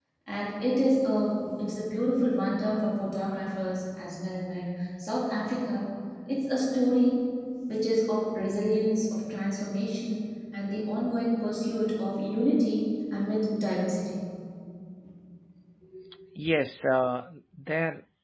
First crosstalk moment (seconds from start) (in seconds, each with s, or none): none